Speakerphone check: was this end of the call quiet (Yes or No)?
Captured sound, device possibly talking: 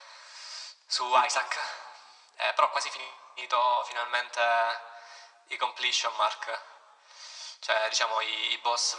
Yes